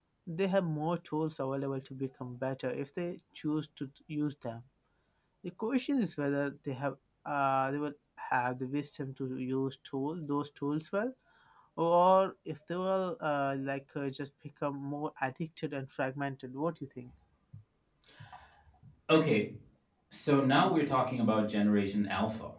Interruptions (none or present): none